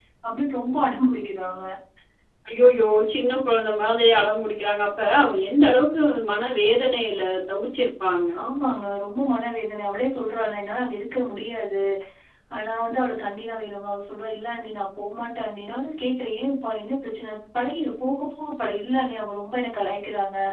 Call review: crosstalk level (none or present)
none